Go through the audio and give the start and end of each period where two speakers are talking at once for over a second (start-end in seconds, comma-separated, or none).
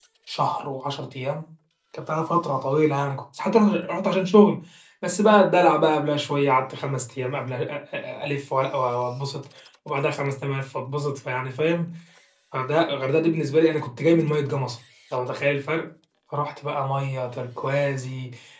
none